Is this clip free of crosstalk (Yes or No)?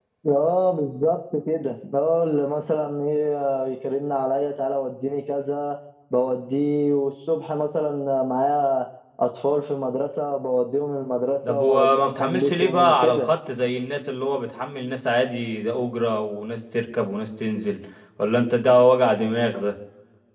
No